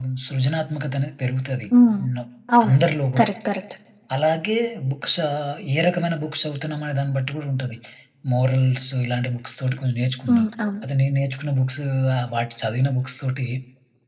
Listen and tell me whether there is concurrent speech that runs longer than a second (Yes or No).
No